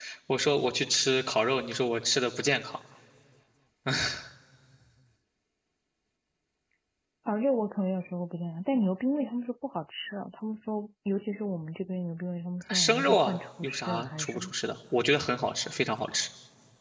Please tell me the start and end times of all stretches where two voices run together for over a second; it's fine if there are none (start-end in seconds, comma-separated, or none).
12.7-14.5